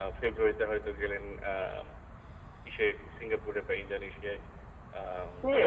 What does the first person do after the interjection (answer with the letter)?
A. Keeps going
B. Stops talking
B